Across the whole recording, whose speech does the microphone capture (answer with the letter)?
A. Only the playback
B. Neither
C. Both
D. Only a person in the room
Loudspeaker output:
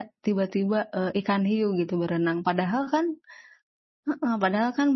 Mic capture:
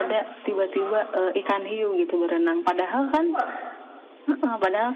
C